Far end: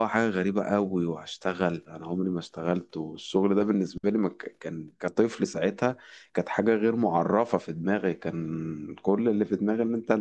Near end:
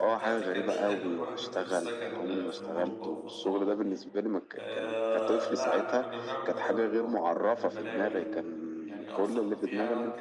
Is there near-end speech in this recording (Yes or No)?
Yes